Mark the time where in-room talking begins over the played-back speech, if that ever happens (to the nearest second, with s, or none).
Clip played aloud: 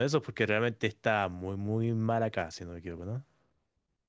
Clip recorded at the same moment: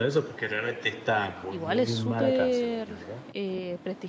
1 s